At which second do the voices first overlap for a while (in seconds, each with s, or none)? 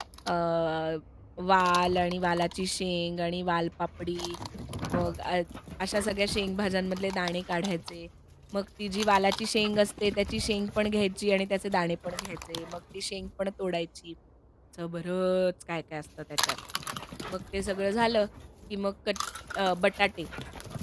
none